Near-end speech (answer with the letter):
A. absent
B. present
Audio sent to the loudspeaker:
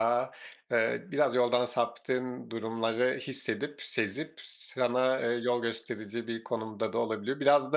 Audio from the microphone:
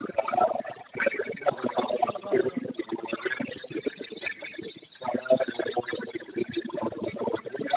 B